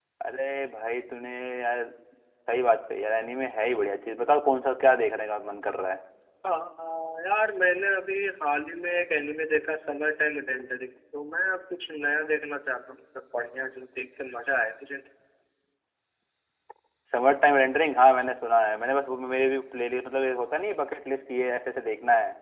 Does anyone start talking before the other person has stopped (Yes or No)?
No